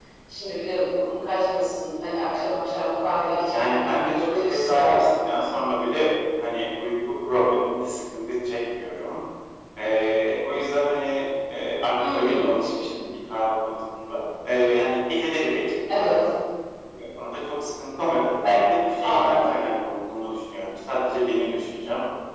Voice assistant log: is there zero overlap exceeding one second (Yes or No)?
No